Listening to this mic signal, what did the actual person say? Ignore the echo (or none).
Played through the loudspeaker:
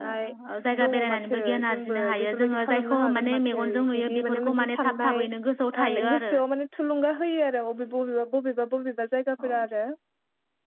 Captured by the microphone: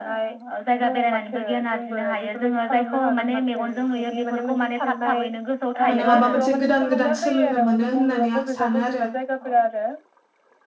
माने माबा मोनसे गोदान गोदान सोलोंनो मोनो होननानै आं सानो आरो।